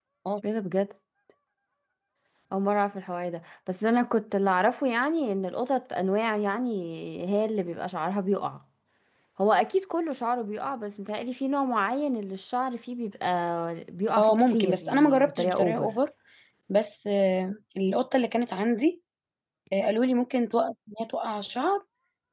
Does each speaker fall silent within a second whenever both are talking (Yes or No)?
No